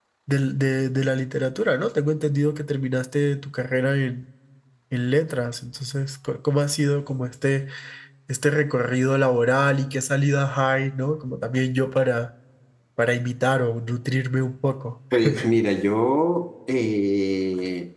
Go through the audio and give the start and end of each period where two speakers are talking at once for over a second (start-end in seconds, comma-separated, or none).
none